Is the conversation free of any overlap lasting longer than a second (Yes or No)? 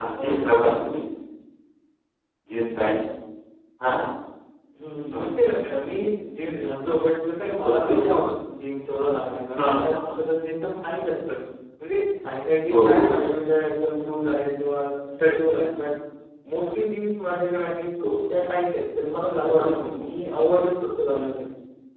Yes